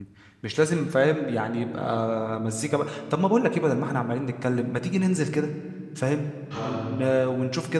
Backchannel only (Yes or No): Yes